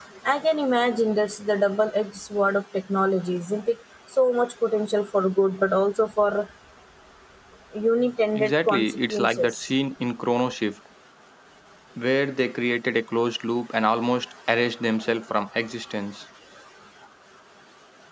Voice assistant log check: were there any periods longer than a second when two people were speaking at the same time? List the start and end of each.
8.3-9.7

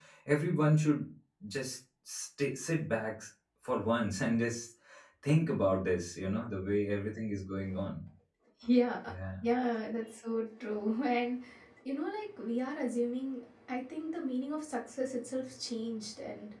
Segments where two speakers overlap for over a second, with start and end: none

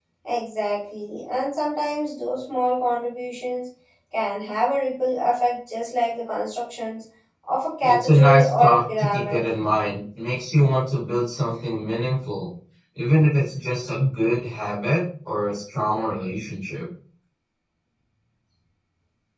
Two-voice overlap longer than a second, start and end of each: 7.8-9.4

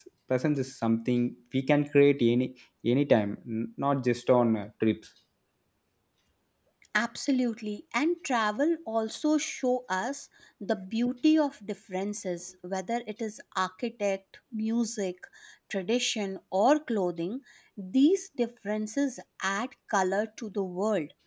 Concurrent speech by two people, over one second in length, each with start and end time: none

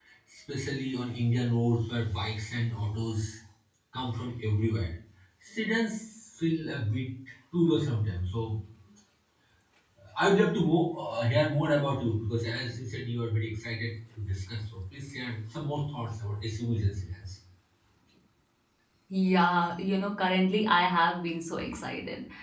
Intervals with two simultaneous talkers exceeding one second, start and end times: none

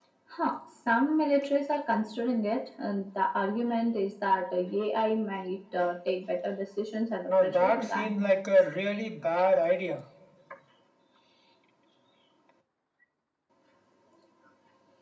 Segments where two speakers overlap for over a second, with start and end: 7.3-8.5

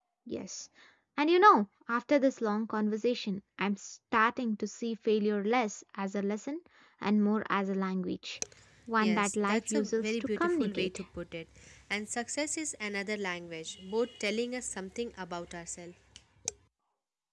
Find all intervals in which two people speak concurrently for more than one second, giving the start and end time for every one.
9.0-10.9

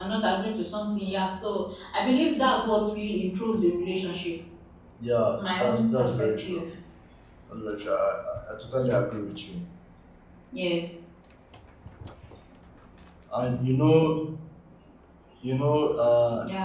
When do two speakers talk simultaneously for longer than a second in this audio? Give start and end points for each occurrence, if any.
5.4-6.6

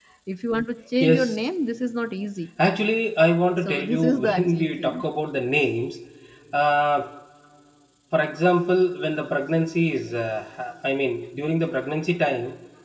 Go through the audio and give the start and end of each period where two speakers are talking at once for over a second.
3.6-5.0

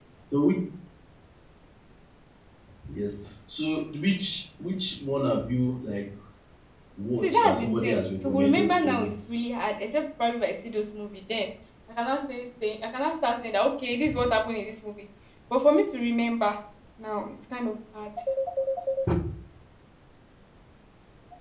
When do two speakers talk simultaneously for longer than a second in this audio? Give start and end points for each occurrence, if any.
7.2-9.1

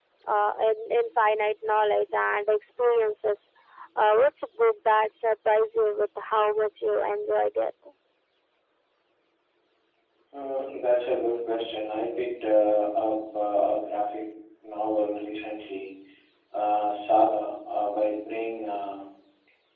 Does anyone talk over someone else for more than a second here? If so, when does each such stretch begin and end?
none

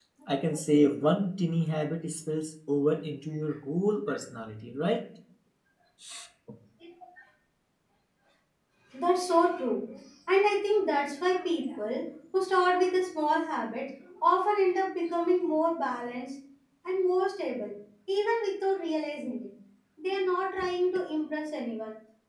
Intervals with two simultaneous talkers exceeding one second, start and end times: none

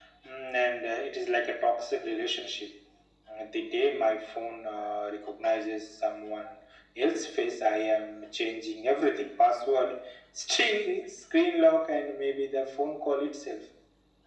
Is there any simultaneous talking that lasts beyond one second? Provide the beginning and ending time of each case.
none

